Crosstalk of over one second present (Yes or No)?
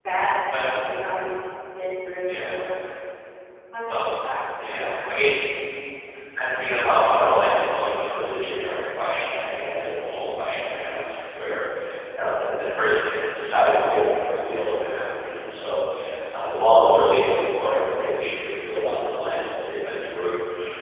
No